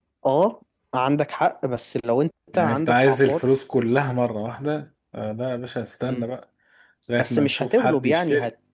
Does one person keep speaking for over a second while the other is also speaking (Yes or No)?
Yes